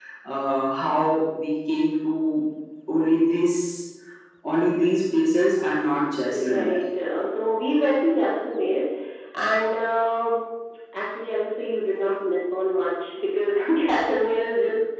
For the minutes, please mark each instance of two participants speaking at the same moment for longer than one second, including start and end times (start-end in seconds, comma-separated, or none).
none